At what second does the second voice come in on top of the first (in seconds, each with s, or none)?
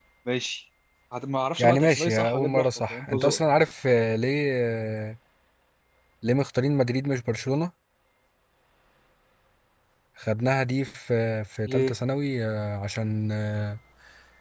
1.6 s